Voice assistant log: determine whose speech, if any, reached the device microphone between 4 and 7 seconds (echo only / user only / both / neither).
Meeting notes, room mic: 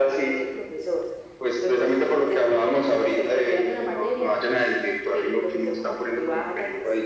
echo only